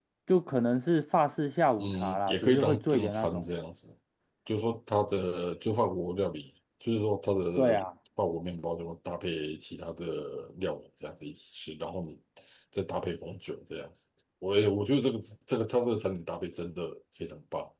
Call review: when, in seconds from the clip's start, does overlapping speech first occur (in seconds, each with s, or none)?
1.8 s